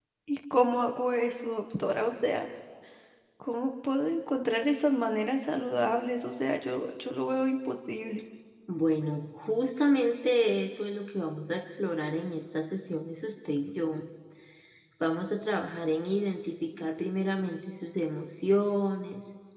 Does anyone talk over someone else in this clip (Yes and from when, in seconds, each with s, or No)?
No